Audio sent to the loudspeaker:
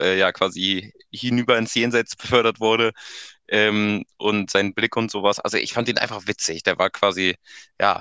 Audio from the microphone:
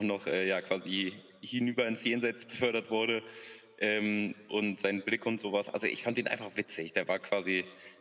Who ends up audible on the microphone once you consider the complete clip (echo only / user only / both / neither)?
echo only